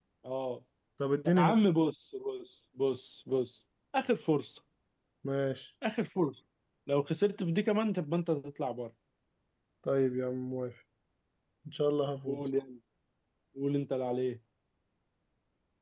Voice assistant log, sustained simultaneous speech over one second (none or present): none